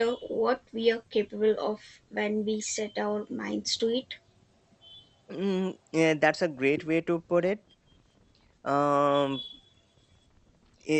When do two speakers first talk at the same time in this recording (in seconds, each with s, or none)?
none